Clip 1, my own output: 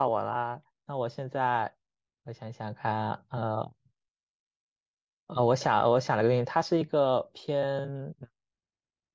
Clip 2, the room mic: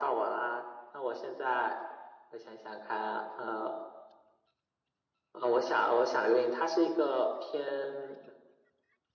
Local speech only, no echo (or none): none